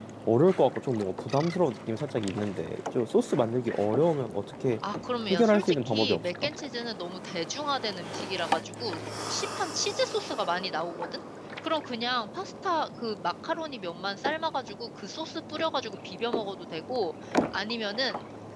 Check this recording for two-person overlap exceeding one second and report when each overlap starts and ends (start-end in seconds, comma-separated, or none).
5.3-6.5